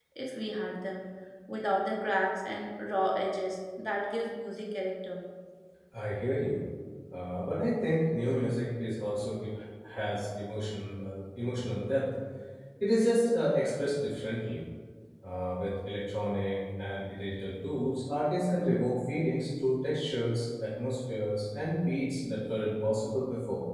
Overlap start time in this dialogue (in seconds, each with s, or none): none